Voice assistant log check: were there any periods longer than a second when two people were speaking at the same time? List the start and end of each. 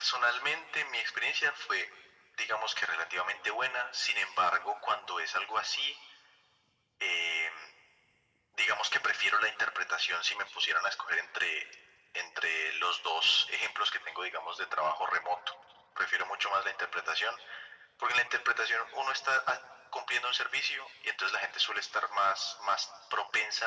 none

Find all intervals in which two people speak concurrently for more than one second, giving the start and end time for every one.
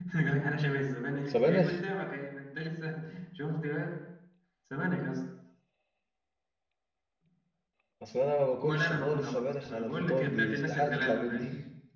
8.5-11.4

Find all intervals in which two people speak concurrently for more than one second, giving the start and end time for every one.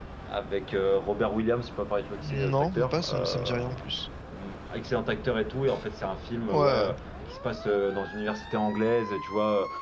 2.3-3.8

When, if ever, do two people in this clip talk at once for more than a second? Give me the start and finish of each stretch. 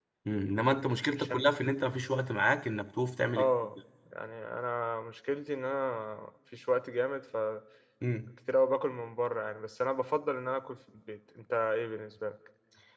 none

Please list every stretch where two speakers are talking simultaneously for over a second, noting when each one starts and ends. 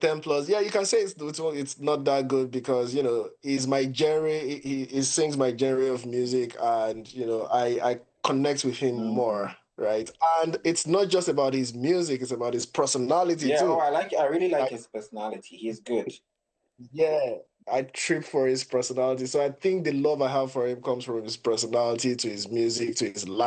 none

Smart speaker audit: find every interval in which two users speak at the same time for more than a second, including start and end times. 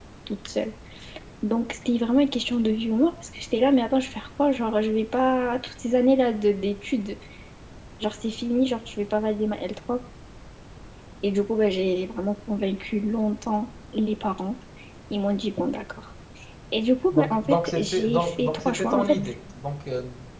17.1-19.2

